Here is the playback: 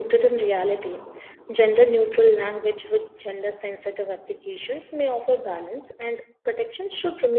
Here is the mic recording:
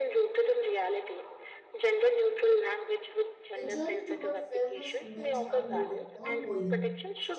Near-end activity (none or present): present